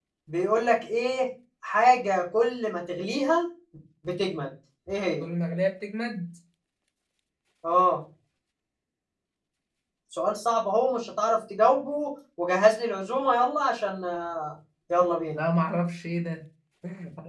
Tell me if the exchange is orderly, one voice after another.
Yes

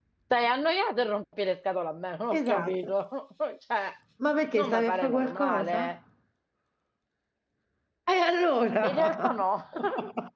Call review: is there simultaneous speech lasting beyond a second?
Yes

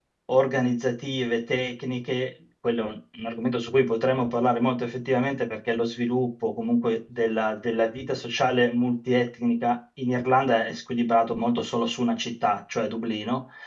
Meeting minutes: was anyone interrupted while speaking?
No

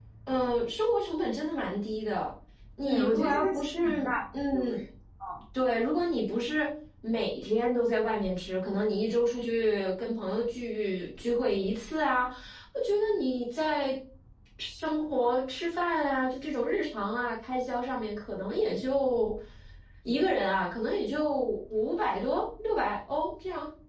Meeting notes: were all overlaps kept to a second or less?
No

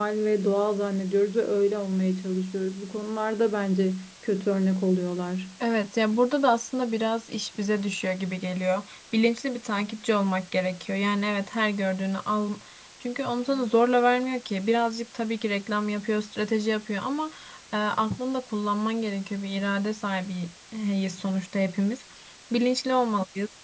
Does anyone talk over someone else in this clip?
No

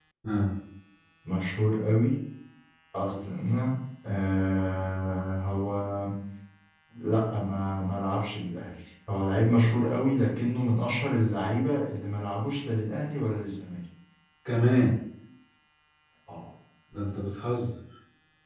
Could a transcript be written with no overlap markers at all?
Yes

